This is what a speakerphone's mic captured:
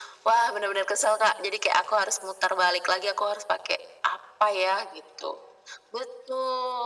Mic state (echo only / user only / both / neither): echo only